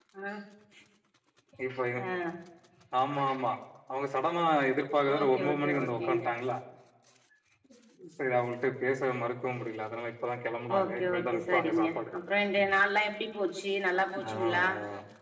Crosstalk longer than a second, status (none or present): present